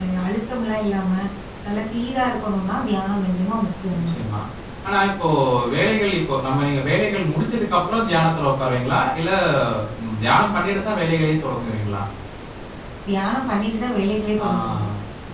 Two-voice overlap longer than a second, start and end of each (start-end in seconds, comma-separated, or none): none